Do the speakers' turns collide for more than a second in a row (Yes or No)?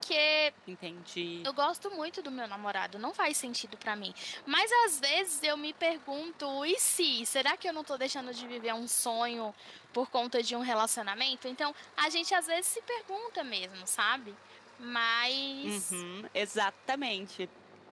No